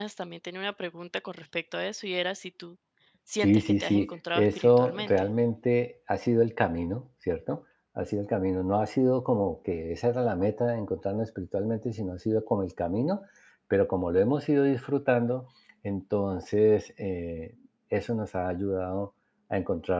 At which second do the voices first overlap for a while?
3.4 s

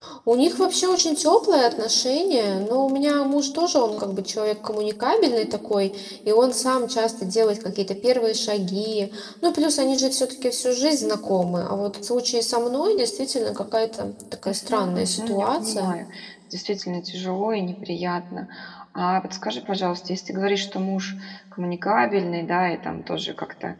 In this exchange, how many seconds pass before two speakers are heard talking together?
14.4 s

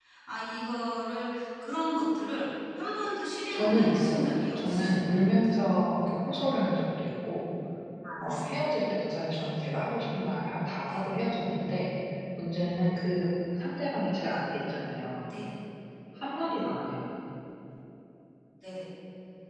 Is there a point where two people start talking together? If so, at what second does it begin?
3.5 s

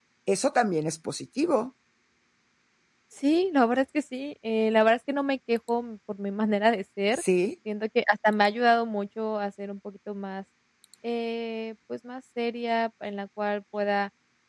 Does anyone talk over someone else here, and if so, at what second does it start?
none

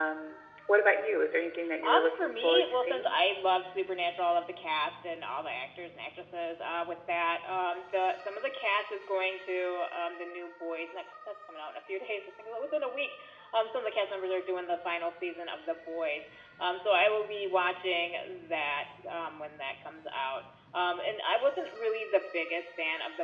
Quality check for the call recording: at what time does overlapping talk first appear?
1.8 s

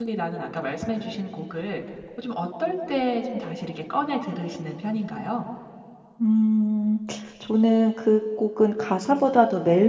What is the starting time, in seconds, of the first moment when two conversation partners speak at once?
none

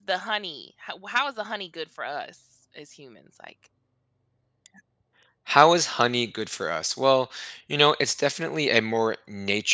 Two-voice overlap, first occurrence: none

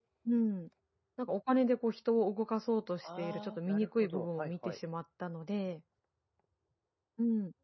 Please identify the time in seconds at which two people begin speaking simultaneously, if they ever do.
3.0 s

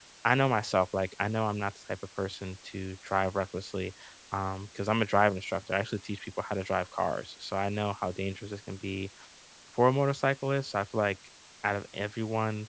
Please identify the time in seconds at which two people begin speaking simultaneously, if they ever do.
none

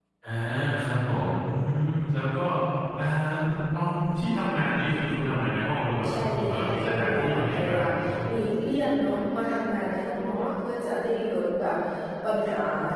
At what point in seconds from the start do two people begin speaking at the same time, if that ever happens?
6.0 s

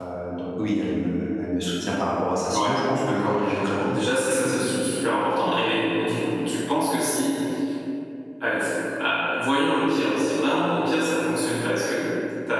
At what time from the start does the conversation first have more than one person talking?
2.5 s

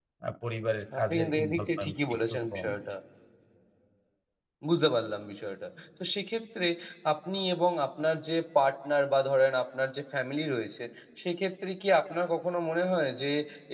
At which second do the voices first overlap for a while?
1.0 s

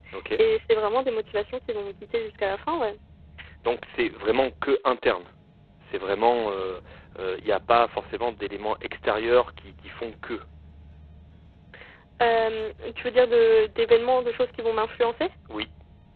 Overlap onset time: none

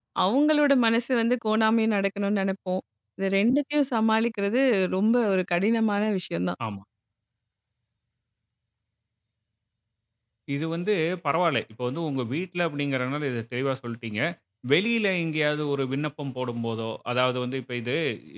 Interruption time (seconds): none

